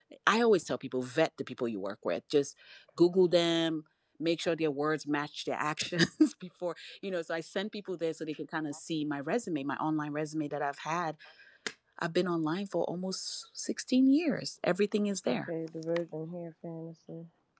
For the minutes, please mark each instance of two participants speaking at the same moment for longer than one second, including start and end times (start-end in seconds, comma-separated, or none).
none